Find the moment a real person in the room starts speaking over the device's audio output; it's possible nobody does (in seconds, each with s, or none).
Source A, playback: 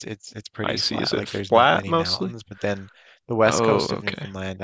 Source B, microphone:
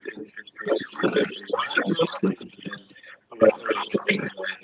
none